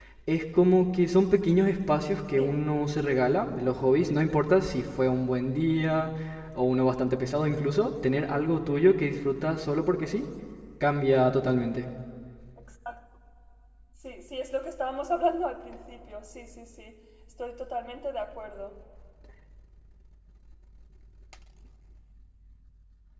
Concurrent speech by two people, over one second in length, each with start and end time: none

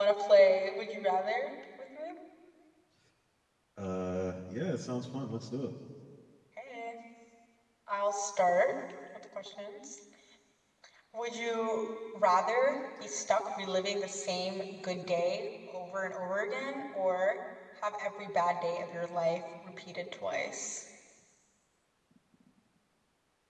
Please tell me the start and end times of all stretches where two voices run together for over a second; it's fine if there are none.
none

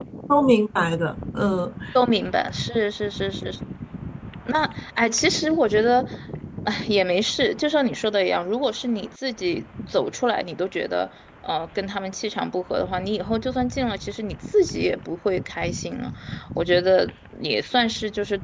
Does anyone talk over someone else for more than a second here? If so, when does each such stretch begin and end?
none

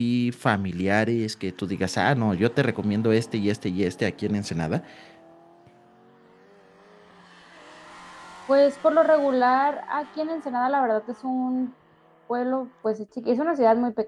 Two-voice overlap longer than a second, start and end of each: none

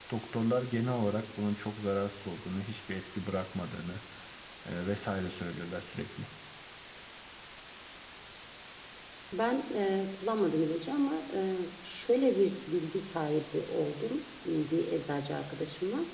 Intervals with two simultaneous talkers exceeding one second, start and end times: none

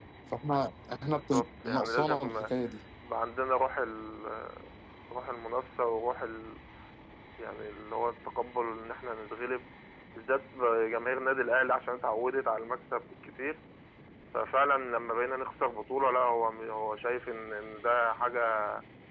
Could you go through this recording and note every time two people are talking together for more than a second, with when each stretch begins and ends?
1.0-2.4

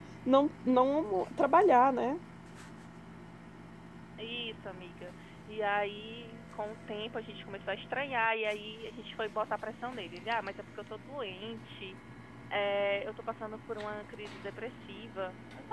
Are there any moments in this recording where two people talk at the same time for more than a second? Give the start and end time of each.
none

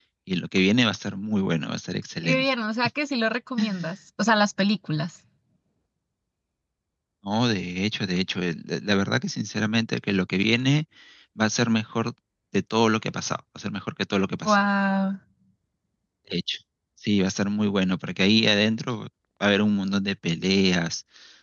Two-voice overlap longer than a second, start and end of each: none

